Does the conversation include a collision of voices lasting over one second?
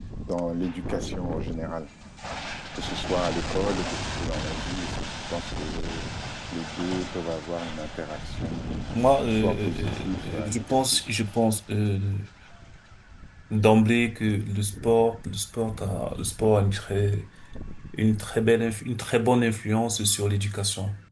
Yes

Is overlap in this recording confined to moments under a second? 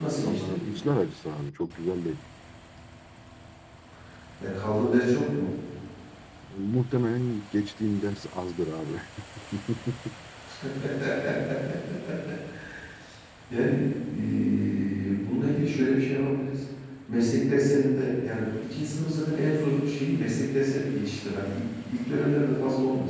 Yes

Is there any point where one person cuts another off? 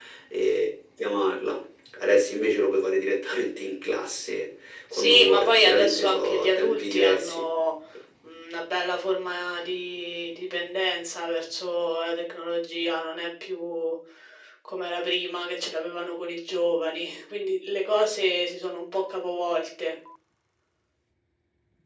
Yes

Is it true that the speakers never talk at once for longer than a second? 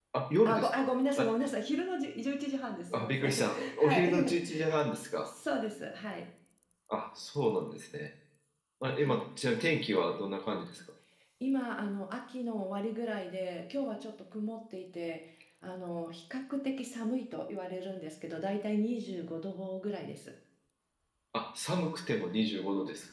No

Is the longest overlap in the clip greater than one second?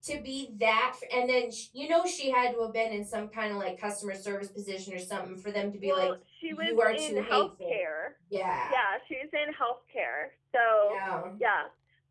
Yes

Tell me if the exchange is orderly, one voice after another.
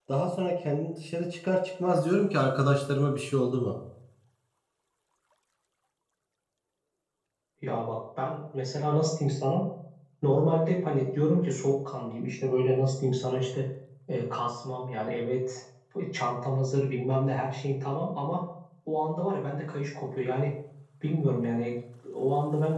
Yes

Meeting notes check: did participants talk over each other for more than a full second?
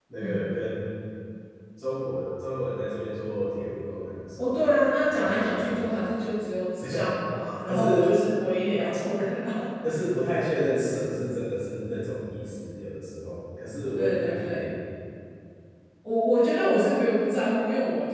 Yes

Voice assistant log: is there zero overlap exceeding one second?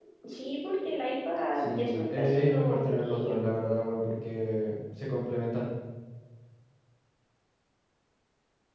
No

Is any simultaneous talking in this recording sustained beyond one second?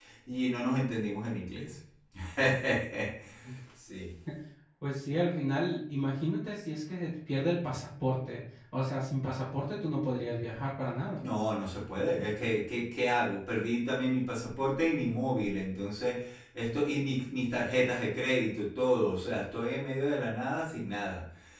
No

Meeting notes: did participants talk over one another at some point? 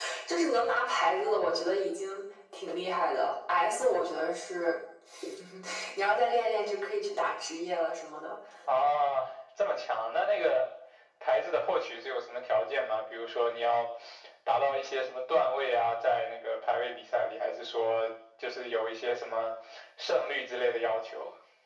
No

